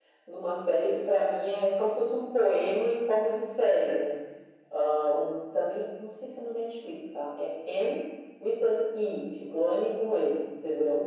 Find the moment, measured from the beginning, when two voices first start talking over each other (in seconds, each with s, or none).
none